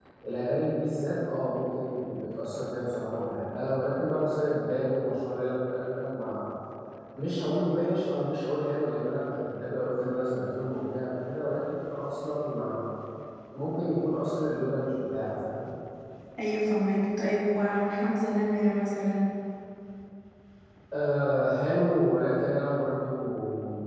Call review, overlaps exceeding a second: none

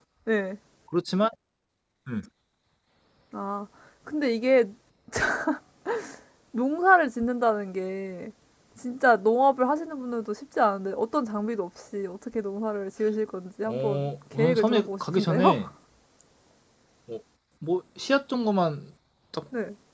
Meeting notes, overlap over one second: present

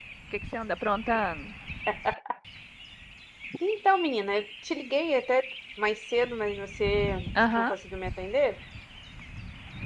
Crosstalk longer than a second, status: none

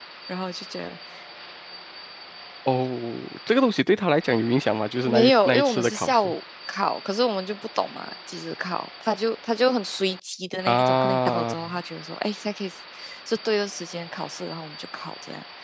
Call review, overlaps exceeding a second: present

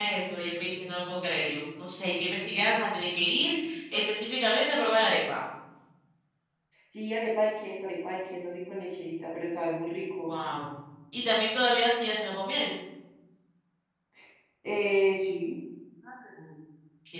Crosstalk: none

